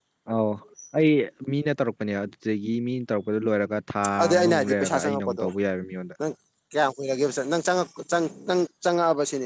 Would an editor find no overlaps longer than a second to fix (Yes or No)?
No